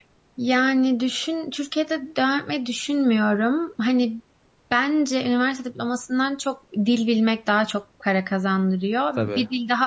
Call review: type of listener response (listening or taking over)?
listening